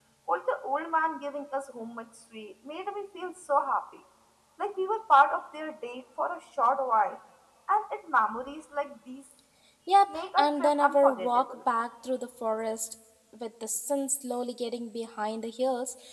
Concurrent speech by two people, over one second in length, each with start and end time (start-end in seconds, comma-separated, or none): 10.1-11.6